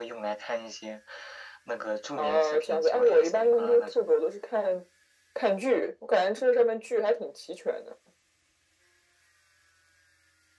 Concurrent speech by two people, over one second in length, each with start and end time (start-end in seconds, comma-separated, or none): 2.2-4.1